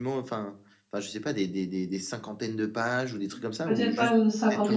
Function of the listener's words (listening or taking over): taking over